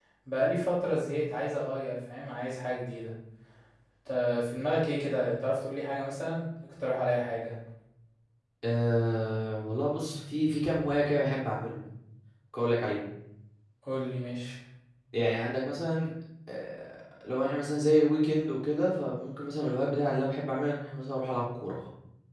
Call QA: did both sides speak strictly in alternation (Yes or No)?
Yes